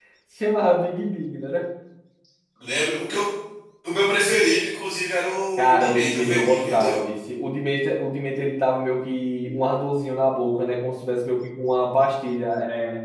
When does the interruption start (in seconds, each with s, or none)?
5.6 s